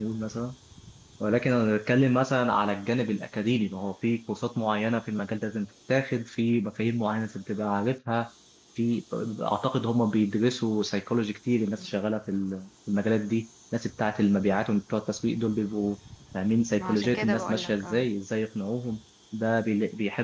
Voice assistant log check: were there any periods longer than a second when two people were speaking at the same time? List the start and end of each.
16.8-18.1

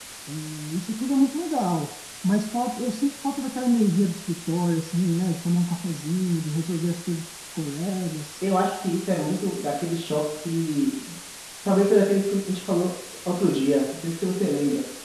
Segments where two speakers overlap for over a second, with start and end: none

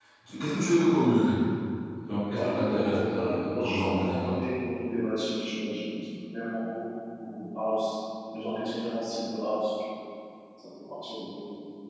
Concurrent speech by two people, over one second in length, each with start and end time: 2.3-4.4

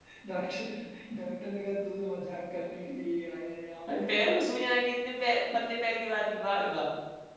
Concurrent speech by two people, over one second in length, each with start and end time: none

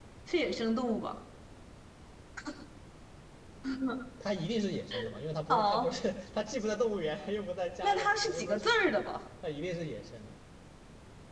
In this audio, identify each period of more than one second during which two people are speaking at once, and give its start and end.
7.8-9.0

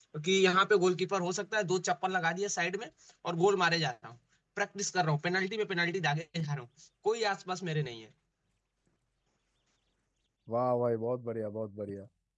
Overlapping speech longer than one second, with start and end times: none

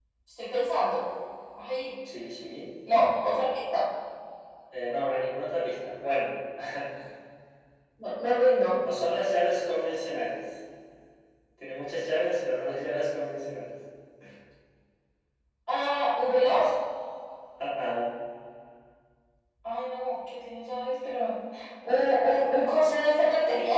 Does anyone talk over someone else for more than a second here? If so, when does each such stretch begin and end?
none

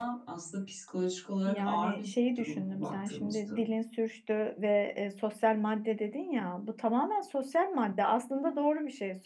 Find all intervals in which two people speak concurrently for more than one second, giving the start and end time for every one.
1.5-3.6

